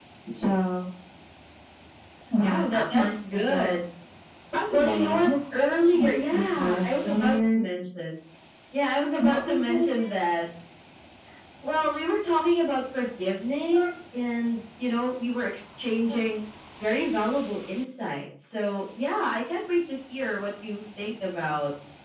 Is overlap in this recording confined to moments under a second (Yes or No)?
No